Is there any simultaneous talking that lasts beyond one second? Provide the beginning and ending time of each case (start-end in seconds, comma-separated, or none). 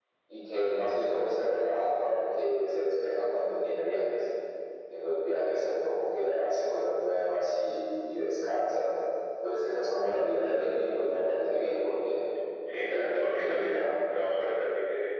12.7-13.9